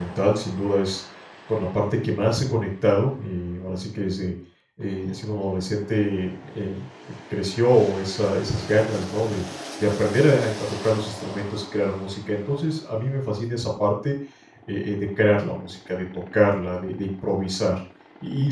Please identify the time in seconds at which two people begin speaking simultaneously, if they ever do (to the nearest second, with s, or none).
none